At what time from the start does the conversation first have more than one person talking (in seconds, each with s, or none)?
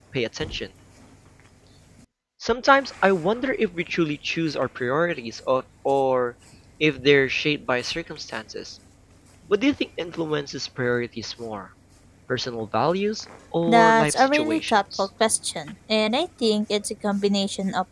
13.7 s